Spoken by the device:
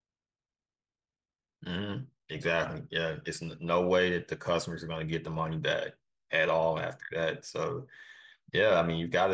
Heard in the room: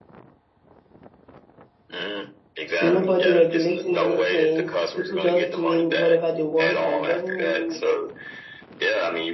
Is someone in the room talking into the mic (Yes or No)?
Yes